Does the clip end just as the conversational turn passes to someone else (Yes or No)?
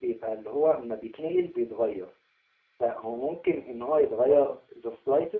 No